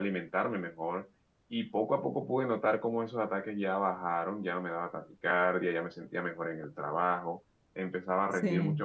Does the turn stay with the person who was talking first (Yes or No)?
Yes